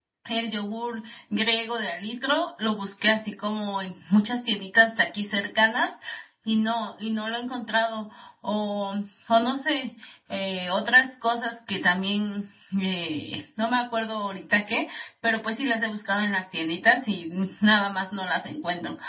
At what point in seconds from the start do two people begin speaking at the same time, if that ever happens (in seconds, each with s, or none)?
none